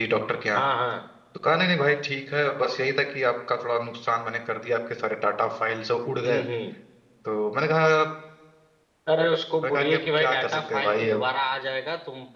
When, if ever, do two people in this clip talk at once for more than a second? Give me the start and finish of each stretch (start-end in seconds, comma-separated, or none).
9.6-11.2